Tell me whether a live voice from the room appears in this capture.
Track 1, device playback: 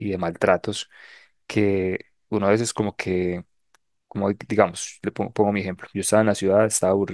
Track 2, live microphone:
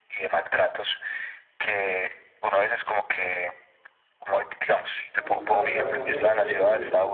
Yes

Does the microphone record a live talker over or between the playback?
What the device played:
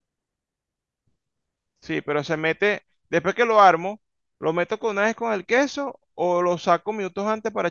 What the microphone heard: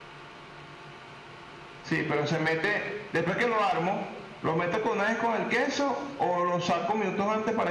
No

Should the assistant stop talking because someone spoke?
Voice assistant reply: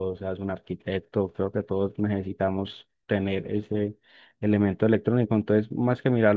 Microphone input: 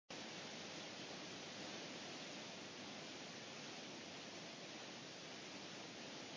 No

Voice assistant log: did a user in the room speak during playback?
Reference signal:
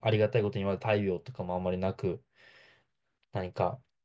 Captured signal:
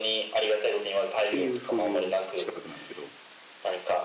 Yes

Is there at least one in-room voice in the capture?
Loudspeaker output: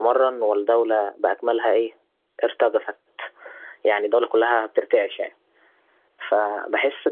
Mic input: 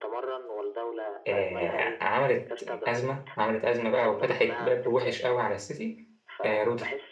Yes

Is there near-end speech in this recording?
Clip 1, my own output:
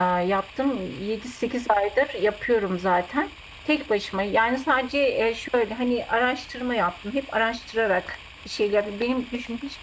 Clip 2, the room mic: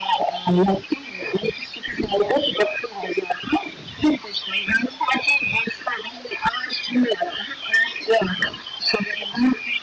No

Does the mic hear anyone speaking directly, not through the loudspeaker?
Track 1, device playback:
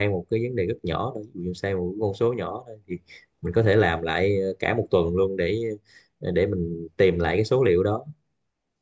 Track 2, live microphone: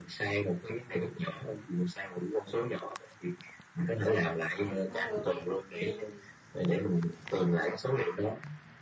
Yes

